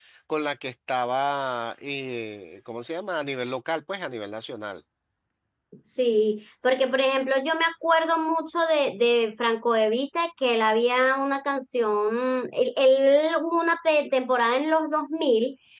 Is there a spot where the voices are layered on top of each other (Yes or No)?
No